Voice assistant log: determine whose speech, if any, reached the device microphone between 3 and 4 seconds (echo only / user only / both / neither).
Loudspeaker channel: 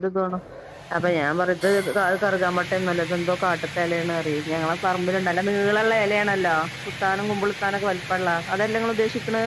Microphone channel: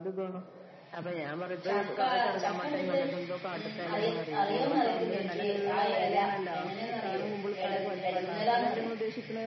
both